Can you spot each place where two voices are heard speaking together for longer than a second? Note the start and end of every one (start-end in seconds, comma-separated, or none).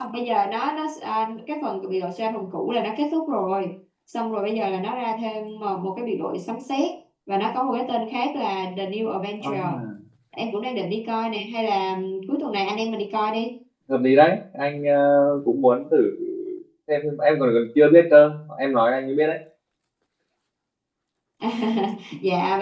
none